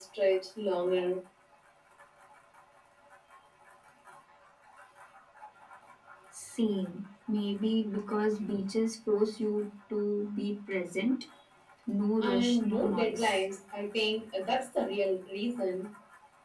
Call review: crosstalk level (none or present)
present